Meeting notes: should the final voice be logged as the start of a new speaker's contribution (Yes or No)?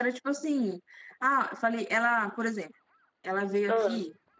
No